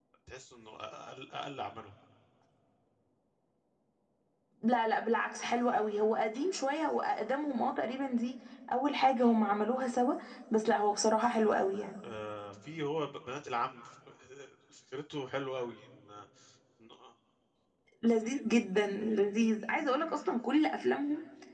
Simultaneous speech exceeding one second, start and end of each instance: none

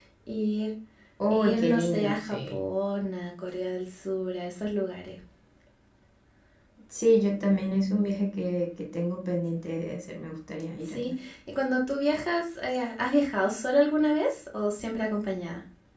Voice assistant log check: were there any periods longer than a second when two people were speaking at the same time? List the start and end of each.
1.3-2.6

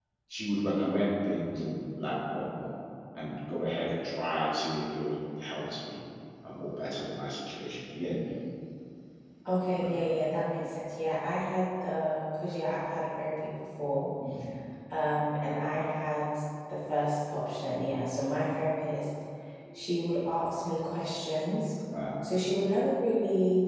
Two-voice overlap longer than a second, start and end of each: none

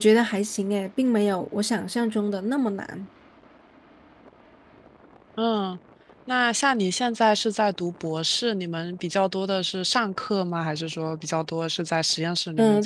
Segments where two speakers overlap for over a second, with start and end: none

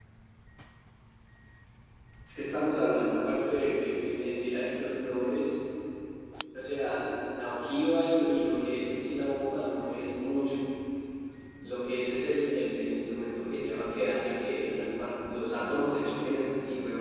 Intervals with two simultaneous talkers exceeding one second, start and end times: none

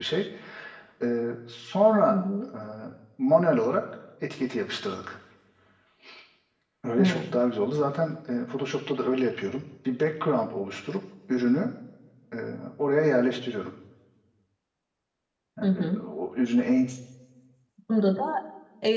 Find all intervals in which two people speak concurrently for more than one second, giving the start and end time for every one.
none

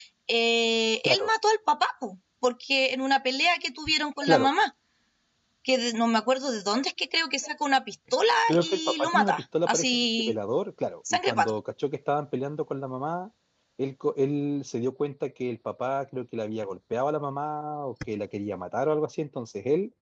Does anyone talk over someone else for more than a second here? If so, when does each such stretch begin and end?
8.5-10.4

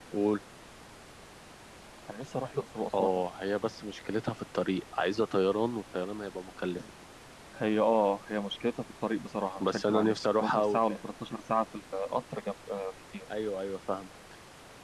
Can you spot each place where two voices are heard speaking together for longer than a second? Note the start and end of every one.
9.7-11.0

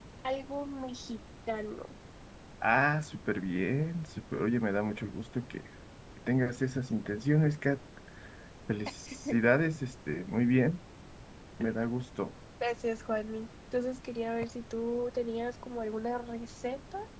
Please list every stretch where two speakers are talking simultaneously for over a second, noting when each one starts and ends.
none

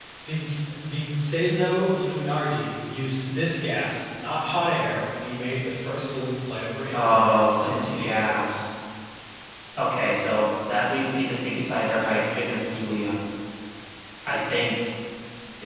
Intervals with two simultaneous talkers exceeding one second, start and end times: 6.9-8.5

